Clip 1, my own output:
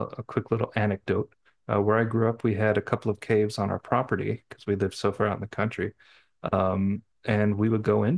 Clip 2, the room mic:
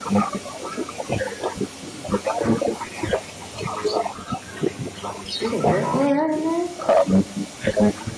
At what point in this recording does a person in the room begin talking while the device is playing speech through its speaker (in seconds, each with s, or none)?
5.4 s